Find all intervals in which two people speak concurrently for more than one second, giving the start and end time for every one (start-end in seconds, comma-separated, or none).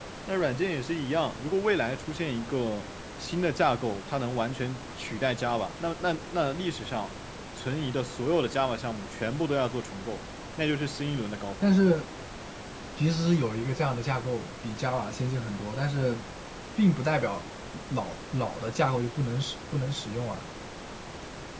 none